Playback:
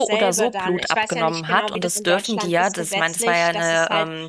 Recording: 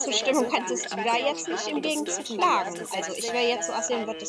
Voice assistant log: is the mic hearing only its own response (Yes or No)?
No